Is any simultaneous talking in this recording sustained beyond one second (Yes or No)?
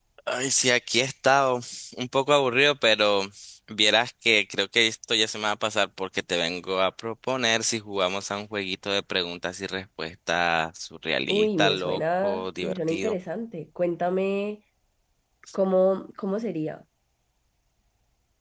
Yes